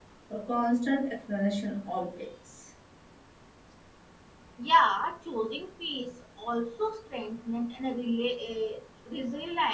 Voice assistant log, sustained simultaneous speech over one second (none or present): none